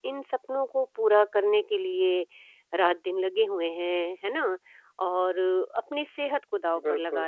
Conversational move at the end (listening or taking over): listening